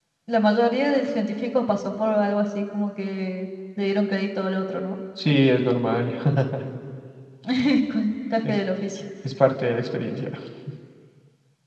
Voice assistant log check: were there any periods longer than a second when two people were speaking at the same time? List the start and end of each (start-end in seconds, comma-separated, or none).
none